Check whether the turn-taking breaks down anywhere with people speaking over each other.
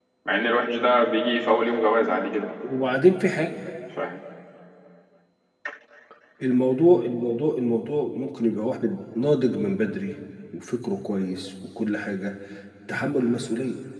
No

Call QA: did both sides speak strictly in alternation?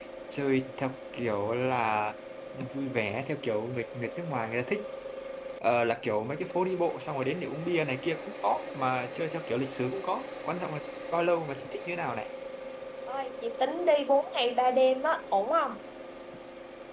Yes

